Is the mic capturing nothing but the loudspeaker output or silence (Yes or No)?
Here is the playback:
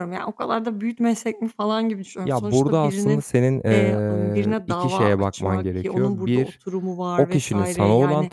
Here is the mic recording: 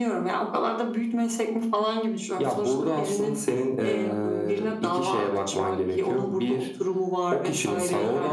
Yes